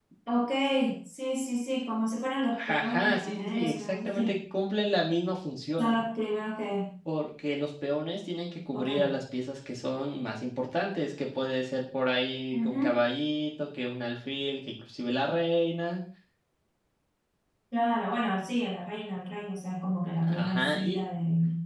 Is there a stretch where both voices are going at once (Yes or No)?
Yes